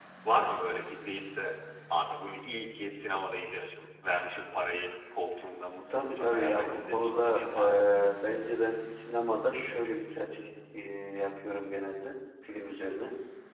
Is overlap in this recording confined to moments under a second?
No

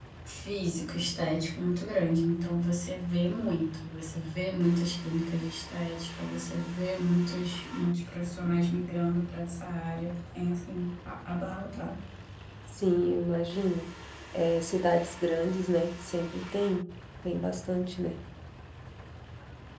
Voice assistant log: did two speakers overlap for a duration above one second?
No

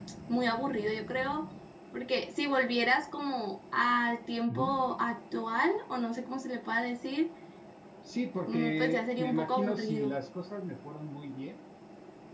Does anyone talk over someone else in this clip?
Yes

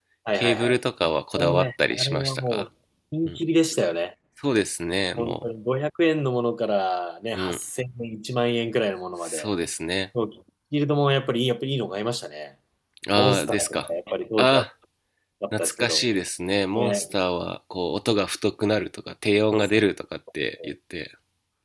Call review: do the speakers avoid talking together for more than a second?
No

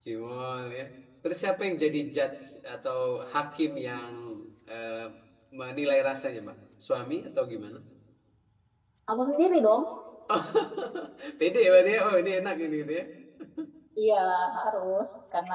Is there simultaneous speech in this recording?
No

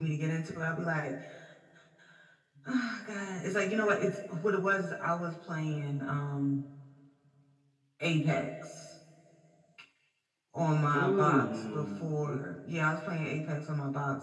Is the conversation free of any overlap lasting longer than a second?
No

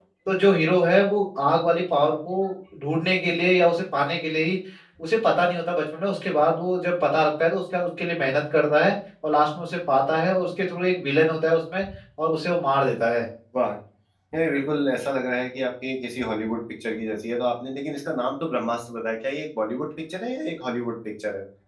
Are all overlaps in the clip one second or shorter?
Yes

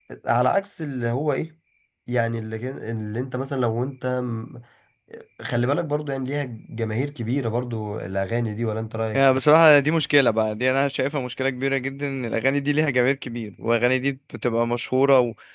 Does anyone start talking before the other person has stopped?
No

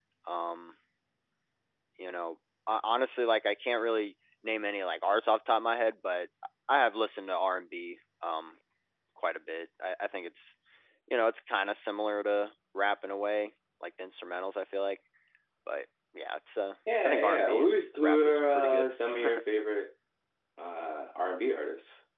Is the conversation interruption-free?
No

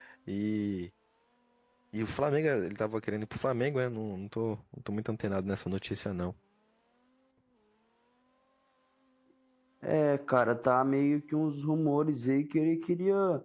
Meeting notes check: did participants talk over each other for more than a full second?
No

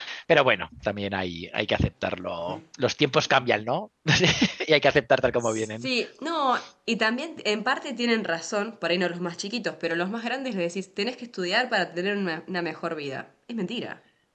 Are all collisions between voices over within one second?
Yes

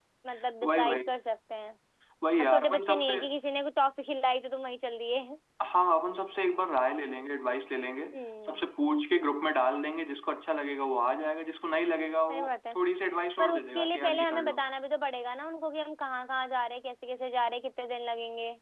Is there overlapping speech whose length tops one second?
Yes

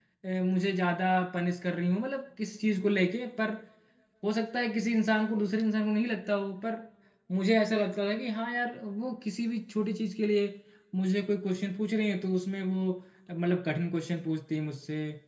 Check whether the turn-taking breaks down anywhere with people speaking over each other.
No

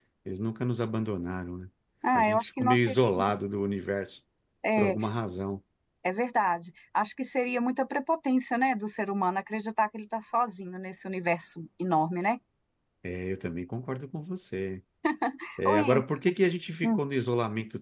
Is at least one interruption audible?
Yes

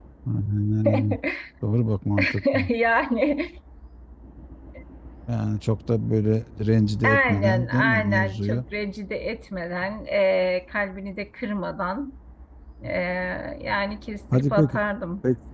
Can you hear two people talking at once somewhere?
Yes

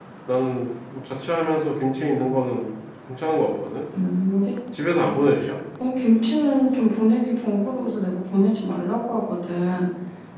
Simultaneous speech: No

